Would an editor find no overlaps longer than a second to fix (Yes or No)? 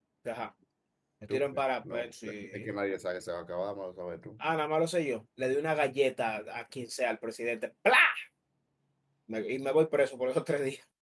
No